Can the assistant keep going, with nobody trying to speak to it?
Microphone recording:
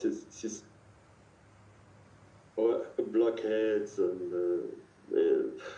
Yes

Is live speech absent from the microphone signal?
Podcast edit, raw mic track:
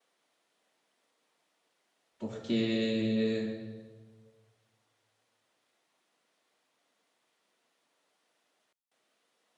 No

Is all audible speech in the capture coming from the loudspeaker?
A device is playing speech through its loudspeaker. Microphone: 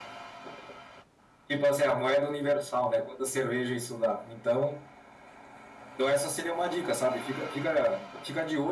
Yes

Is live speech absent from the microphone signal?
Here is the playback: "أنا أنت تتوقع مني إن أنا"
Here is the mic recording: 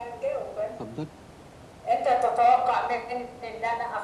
No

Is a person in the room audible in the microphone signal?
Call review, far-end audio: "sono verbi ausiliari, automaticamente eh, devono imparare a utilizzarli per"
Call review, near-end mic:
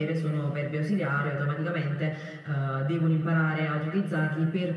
No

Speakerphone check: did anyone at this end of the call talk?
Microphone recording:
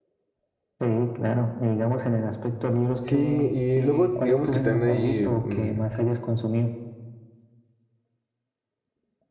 Yes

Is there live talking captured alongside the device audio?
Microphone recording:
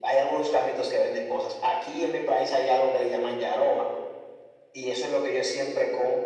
No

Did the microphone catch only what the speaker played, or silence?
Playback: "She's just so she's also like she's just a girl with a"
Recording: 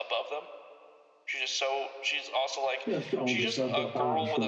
No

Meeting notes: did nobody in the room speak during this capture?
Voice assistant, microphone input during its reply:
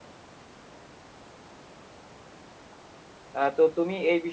No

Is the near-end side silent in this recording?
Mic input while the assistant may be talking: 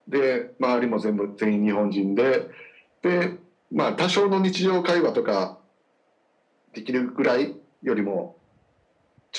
Yes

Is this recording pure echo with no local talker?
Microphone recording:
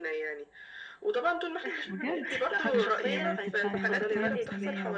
No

